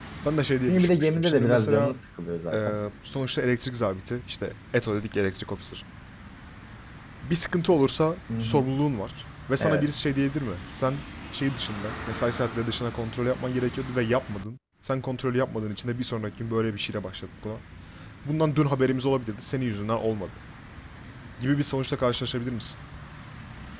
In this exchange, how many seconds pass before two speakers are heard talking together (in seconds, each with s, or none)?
0.7 s